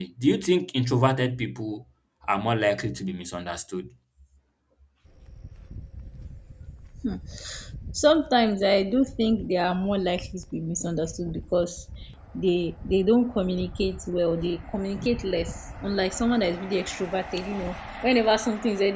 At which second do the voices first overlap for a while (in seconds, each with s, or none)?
none